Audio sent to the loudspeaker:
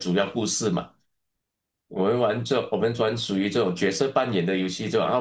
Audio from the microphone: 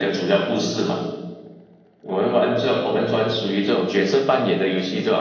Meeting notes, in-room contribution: none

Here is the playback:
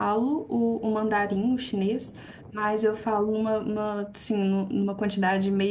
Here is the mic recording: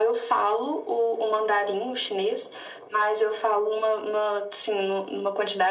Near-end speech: none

